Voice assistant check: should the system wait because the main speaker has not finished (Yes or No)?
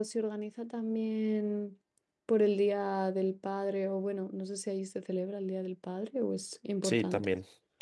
No